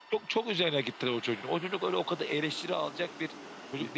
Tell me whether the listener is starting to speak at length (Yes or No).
No